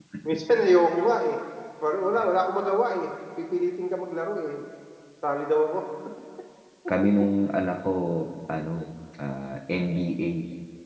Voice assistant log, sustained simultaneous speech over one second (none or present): none